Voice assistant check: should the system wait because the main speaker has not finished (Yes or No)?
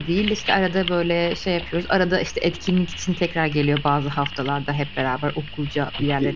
No